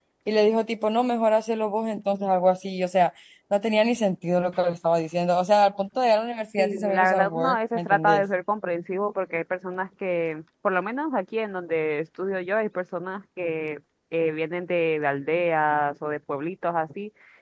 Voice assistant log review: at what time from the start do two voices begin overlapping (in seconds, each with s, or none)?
6.6 s